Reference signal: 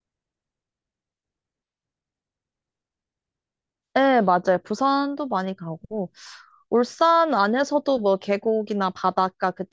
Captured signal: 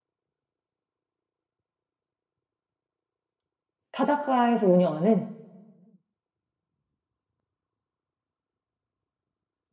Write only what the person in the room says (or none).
바닷가에서 운영하는?